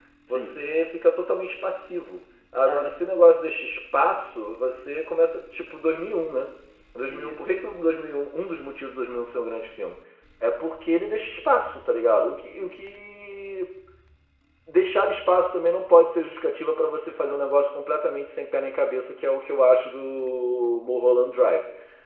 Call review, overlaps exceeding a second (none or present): none